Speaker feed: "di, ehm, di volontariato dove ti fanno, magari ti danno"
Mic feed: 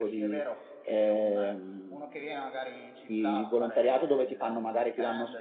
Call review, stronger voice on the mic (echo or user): echo